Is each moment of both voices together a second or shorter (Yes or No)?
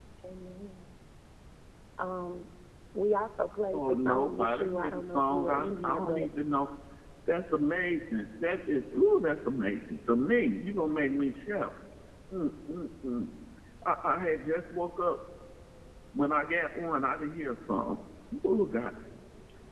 No